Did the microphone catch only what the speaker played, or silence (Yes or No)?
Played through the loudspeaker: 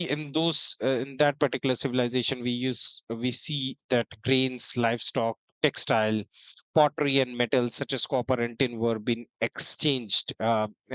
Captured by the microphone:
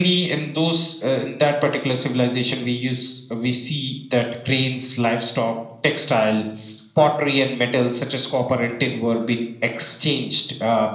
Yes